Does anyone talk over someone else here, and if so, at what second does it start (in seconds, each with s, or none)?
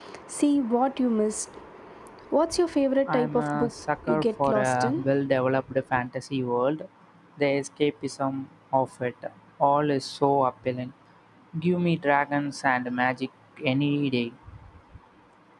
3.1 s